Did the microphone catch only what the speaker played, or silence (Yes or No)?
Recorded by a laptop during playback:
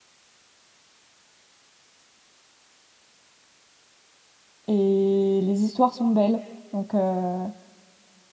No